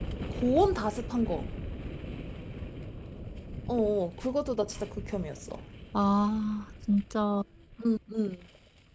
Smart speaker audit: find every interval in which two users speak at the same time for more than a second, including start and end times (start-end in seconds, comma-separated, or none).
none